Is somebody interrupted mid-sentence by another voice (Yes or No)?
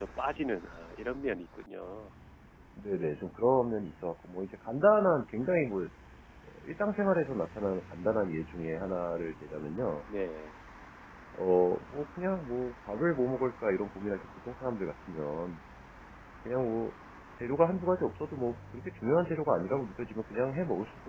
No